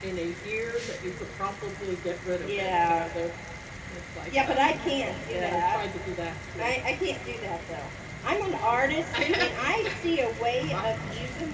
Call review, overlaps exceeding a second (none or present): present